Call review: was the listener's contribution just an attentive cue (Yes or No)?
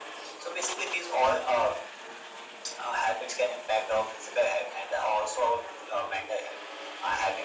Yes